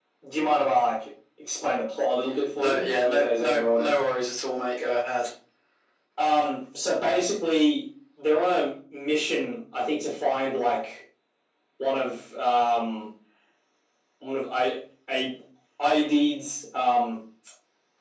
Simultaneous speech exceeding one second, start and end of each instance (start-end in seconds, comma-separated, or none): 2.5-3.9